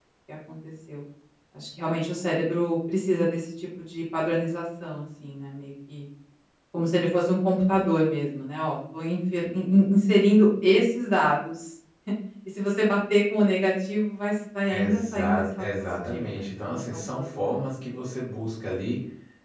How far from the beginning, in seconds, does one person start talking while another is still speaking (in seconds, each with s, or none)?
14.7 s